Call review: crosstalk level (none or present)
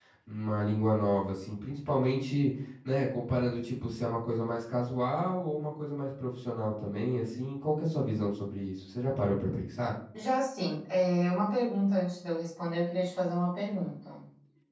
none